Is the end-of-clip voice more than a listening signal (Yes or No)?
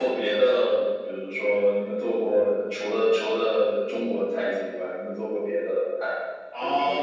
Yes